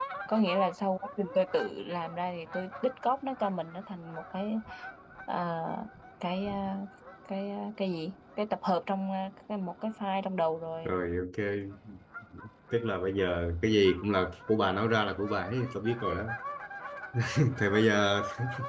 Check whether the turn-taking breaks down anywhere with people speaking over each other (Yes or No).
No